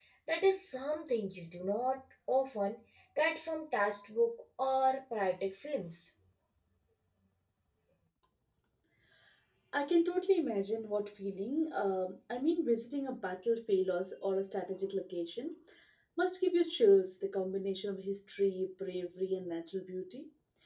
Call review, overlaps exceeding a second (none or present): none